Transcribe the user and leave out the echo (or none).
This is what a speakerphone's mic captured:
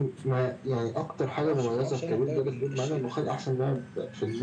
ما اعرفش ما اعرفش انا المدرب اللي الش-